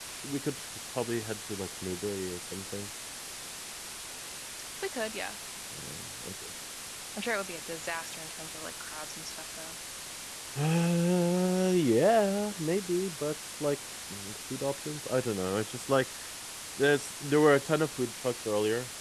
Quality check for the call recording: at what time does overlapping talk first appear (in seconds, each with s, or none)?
none